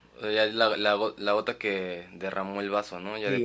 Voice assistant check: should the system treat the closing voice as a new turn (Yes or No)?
Yes